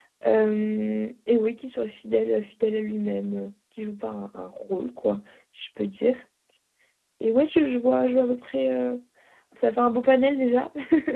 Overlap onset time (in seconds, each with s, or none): none